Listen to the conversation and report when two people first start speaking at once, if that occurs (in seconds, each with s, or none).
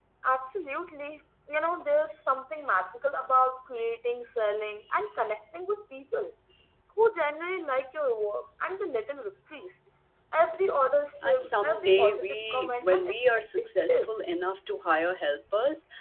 11.2 s